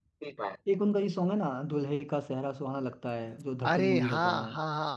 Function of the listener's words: taking over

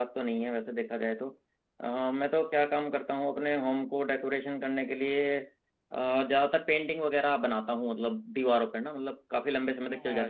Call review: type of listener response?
taking over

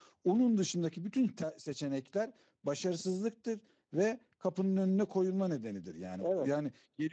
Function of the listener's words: listening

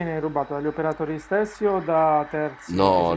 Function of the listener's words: taking over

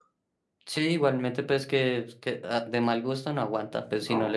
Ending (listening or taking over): listening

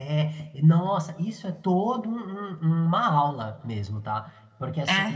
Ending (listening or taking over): listening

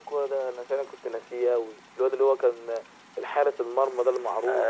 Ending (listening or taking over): taking over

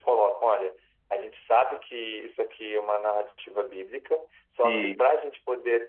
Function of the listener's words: listening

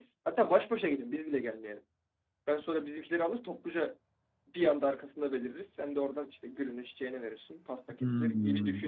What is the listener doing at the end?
taking over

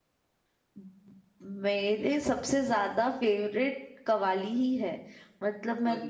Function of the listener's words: listening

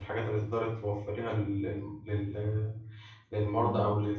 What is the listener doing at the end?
listening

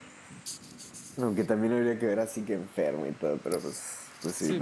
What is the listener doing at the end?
taking over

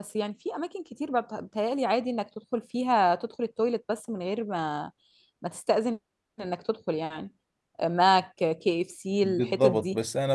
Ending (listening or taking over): taking over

